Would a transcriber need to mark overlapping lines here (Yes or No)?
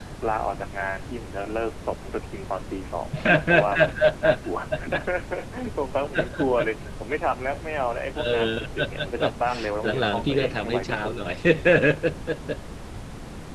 Yes